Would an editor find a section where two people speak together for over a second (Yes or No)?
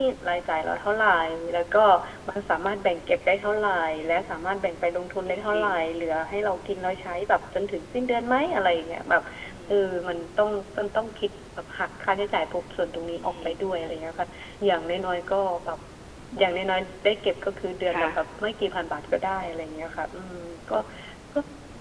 No